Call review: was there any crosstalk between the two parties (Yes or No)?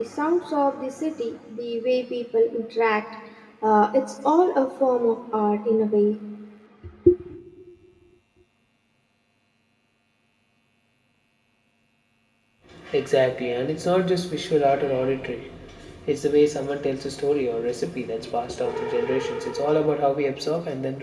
No